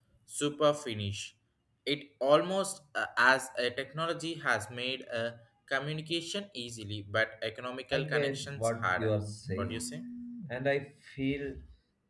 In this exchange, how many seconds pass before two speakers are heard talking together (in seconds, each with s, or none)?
7.9 s